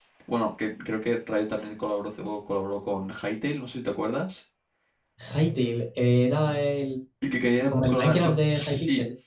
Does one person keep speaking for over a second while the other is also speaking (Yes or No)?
Yes